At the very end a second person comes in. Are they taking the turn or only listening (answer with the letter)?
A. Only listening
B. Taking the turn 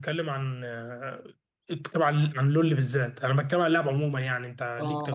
B